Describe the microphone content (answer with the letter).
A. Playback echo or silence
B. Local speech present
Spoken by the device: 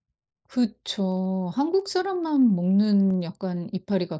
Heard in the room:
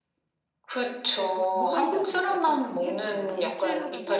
B